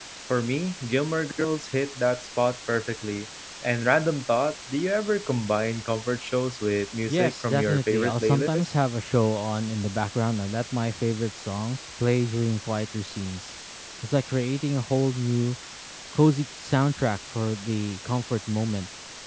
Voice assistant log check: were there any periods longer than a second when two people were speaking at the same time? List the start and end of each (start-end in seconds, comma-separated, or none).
7.1-8.7